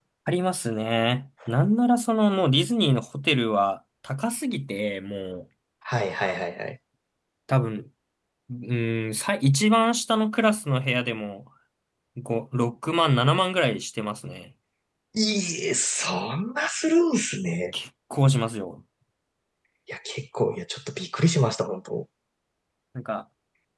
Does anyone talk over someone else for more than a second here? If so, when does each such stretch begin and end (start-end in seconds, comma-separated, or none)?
none